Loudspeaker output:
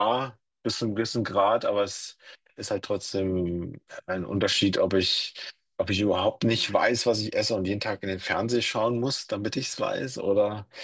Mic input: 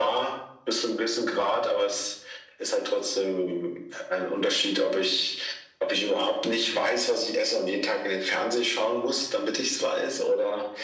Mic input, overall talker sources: echo only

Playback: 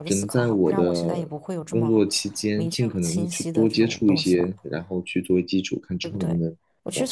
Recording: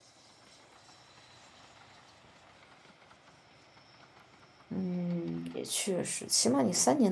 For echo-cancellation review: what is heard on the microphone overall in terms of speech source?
user only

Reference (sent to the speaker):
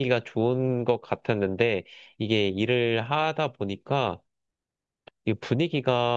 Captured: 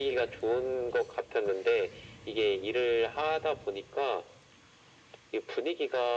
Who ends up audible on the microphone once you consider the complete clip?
echo only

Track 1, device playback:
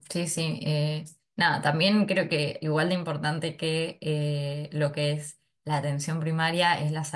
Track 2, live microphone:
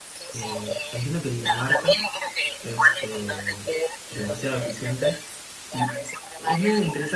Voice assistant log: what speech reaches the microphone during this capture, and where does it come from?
both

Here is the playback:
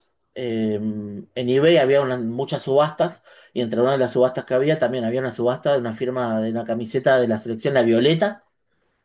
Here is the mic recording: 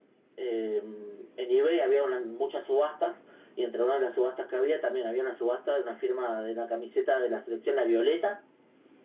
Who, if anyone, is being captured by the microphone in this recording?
echo only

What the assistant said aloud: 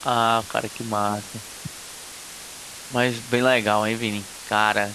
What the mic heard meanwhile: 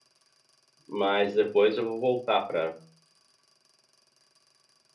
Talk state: user only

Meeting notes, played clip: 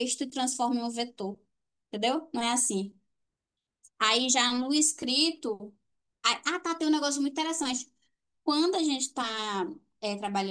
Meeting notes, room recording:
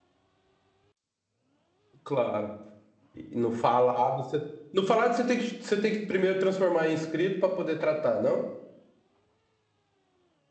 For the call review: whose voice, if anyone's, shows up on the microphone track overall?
user only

